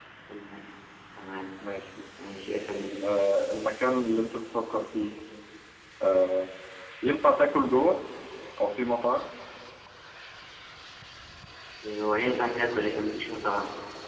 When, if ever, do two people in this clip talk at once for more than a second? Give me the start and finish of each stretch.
none

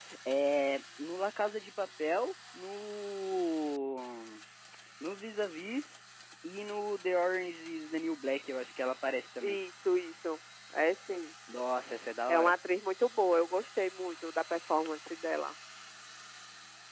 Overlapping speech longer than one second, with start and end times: none

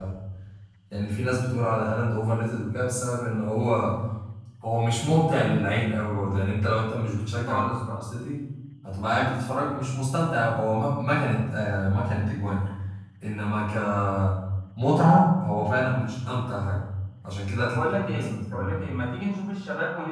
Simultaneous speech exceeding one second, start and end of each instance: 17.6-18.8

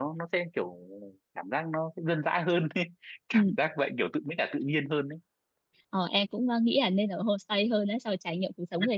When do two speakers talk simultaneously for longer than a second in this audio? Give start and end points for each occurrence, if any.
none

